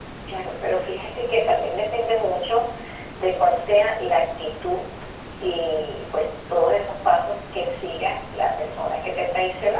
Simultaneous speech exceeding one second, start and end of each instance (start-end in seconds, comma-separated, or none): none